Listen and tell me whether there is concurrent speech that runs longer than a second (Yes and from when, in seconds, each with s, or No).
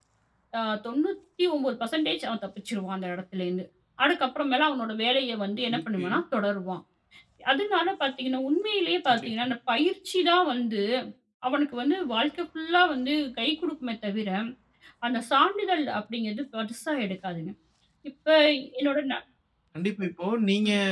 No